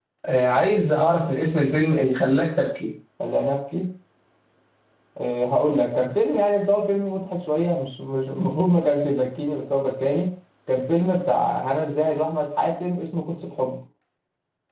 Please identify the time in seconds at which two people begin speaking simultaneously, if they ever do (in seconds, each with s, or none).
none